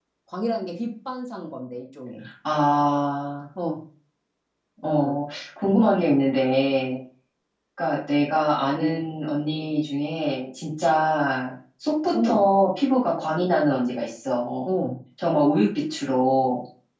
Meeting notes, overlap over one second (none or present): none